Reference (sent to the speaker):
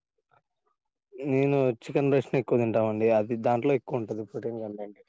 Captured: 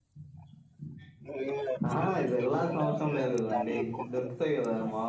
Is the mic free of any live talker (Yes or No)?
No